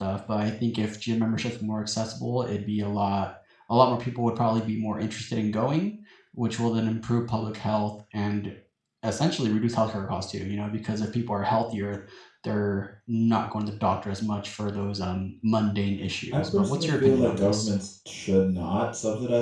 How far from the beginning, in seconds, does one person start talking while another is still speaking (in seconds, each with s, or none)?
16.3 s